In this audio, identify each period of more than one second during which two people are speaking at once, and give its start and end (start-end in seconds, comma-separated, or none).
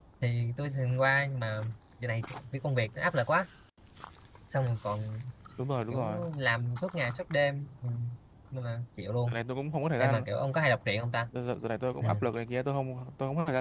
none